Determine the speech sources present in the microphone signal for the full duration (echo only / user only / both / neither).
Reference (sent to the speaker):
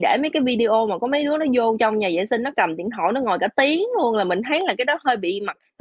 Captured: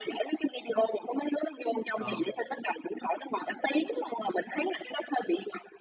both